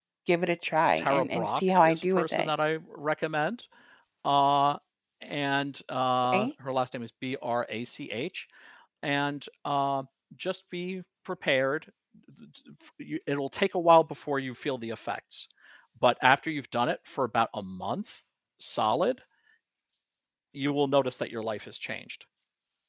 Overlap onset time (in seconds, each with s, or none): 0.9 s